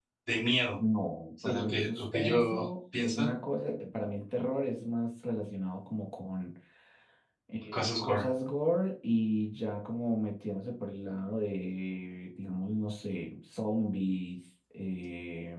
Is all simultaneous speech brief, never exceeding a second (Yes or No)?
No